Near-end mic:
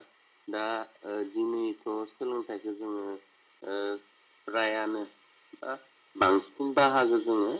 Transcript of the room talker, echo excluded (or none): none